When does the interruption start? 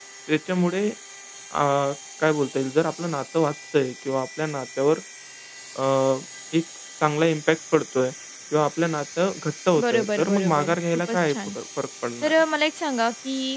9.8 s

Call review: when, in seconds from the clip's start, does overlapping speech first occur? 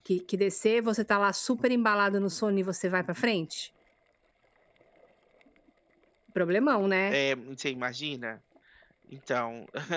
none

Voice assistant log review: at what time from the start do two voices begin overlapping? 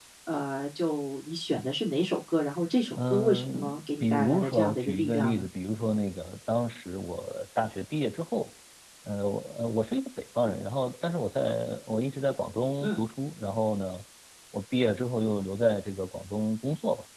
3.0 s

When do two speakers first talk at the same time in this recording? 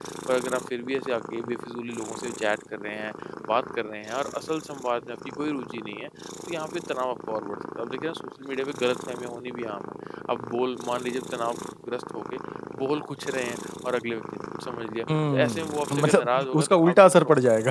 15.1 s

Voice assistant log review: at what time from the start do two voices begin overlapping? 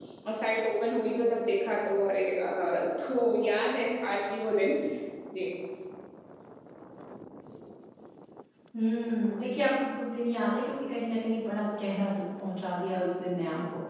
none

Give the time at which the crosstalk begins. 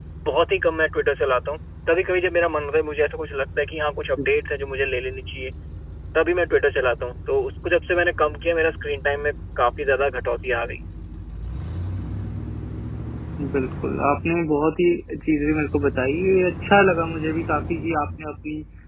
none

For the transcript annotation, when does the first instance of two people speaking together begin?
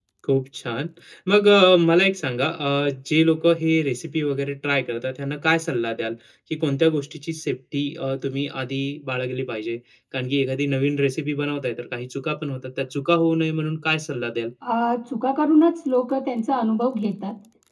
none

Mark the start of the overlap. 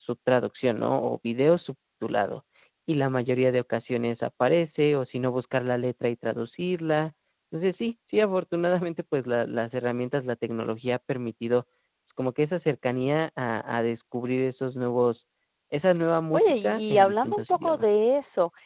16.3 s

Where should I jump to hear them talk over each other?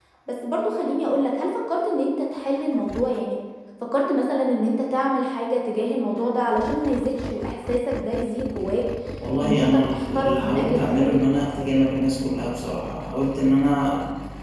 9.4 s

